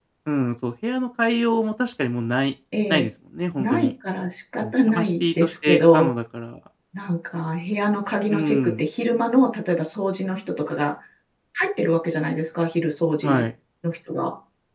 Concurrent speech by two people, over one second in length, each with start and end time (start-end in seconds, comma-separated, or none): 4.6-6.1